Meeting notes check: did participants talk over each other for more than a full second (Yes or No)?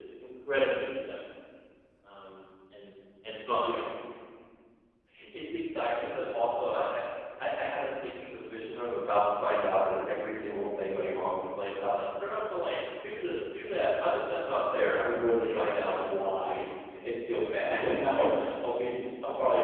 No